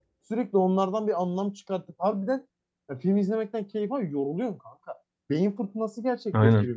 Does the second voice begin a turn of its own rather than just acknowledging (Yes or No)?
Yes